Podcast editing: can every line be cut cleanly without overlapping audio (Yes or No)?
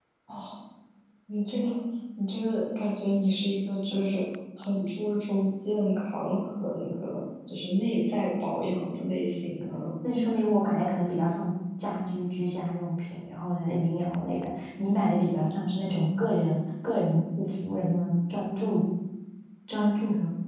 Yes